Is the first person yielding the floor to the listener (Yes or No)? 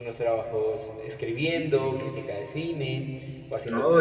No